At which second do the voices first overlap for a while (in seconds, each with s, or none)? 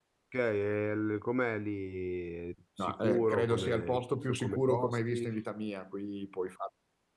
2.8 s